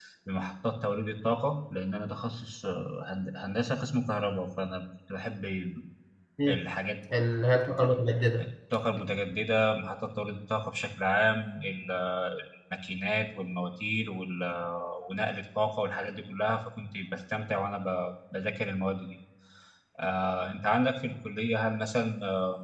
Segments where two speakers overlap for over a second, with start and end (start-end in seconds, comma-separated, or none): none